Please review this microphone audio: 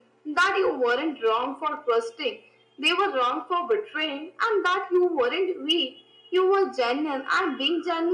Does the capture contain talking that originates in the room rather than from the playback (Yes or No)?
No